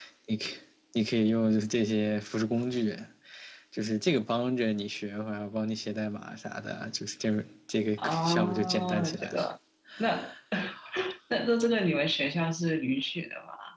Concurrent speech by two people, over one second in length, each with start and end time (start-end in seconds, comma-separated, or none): 8.0-9.3